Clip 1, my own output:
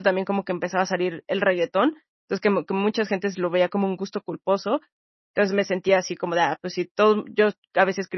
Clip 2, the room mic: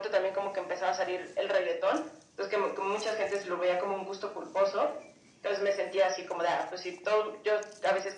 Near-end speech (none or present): none